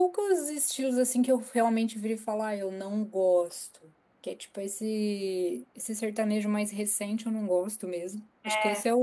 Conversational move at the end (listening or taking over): listening